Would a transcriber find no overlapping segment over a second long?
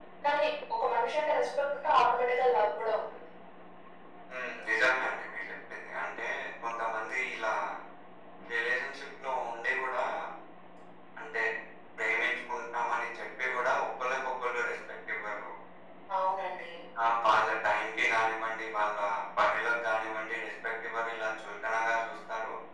Yes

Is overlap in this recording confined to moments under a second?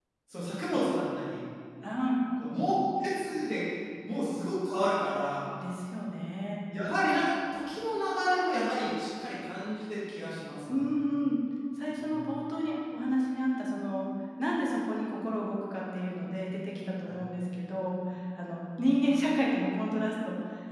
Yes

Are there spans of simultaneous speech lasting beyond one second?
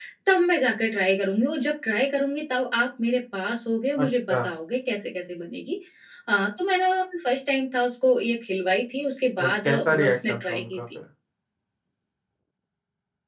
Yes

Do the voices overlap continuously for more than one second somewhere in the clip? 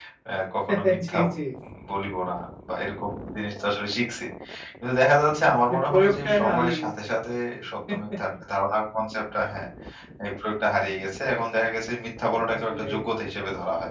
Yes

